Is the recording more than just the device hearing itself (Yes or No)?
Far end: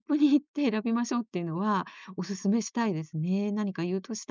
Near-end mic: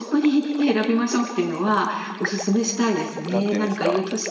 Yes